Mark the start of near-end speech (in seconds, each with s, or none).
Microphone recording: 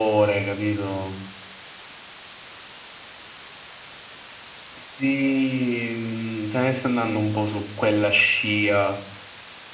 none